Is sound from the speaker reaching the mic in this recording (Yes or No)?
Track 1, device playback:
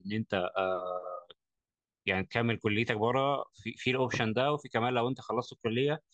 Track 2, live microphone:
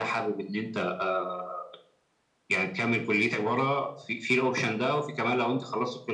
Yes